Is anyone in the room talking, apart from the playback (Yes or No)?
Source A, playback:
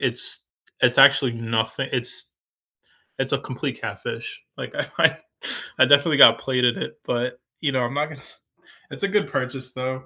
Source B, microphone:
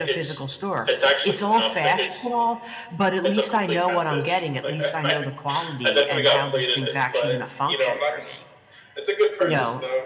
Yes